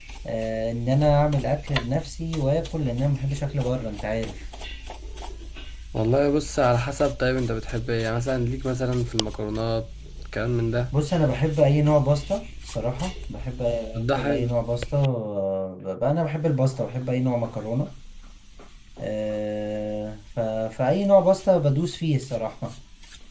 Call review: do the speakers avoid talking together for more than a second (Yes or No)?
Yes